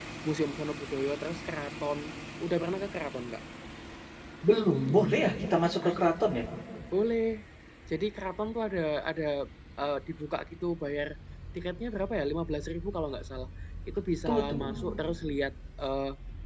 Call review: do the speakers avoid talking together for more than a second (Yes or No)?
Yes